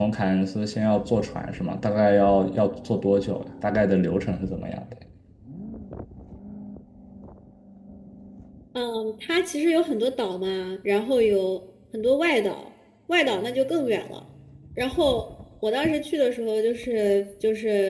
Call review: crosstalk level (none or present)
none